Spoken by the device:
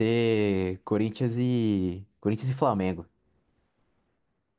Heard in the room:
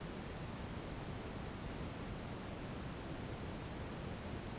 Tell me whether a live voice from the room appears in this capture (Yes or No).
No